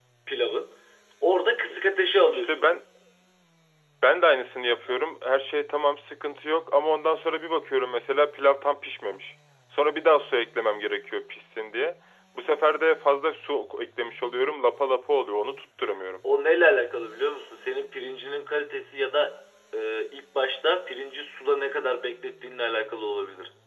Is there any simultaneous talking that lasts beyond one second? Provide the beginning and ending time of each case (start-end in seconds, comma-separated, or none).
none